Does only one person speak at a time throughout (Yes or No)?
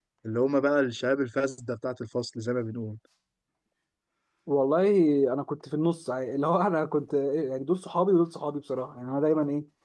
Yes